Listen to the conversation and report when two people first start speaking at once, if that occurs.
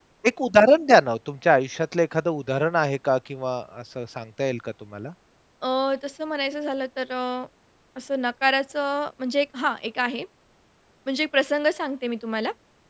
none

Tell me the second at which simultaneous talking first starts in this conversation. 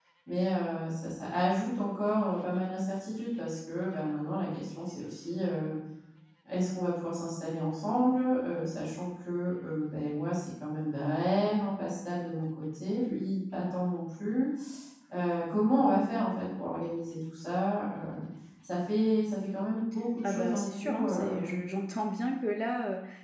20.2 s

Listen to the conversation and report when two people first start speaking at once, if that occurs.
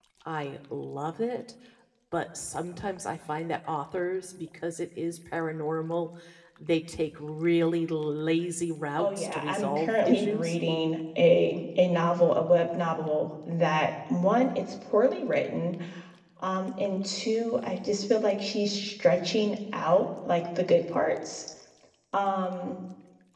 9.0 s

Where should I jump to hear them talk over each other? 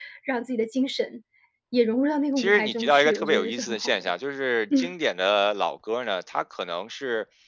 2.4 s

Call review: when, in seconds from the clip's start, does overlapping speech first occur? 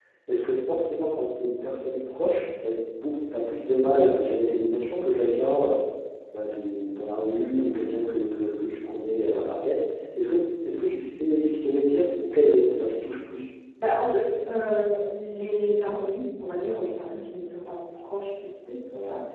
none

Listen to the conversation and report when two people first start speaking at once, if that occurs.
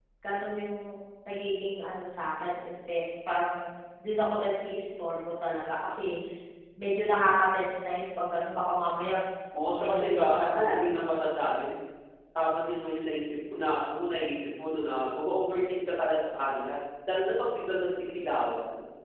9.8 s

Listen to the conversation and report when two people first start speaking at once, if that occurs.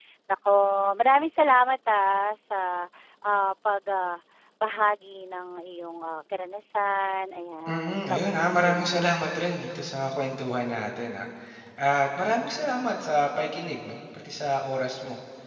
7.7 s

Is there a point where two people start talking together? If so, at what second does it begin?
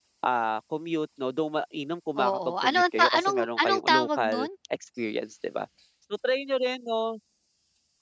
2.2 s

